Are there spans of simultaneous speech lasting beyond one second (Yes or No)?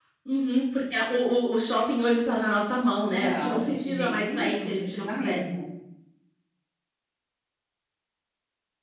Yes